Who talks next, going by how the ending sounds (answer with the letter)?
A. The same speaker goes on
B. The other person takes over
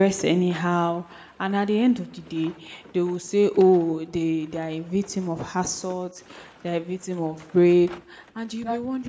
A